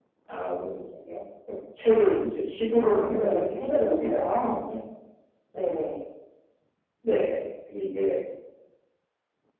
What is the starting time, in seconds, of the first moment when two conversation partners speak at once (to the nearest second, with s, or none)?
3 s